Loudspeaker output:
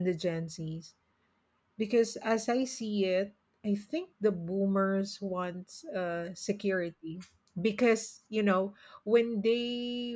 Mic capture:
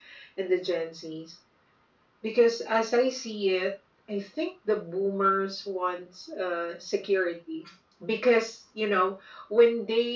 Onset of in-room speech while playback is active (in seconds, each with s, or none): none